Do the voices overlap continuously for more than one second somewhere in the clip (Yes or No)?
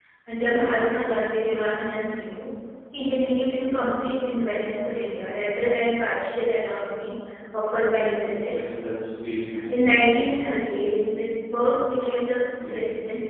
No